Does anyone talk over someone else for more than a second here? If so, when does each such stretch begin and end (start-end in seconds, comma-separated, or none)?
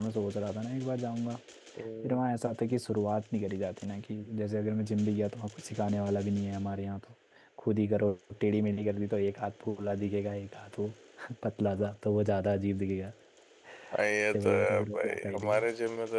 14.3-15.7